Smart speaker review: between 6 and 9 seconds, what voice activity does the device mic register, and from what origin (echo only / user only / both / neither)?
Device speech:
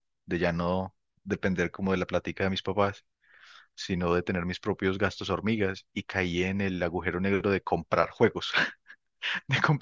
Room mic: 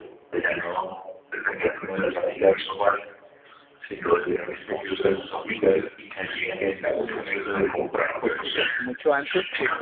both